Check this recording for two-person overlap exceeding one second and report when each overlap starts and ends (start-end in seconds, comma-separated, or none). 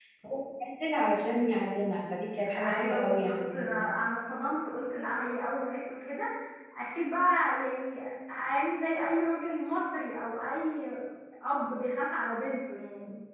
2.6-3.9